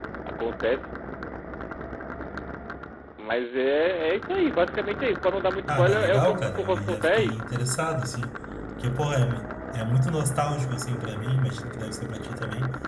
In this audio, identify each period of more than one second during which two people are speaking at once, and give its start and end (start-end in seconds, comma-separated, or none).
5.7-7.3